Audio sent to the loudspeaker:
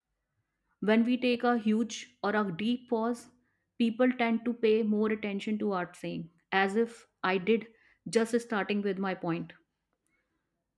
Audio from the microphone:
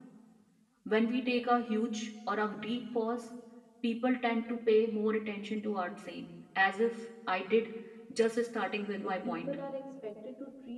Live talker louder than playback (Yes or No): No